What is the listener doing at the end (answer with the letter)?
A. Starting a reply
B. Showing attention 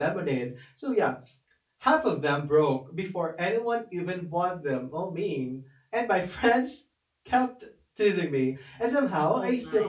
B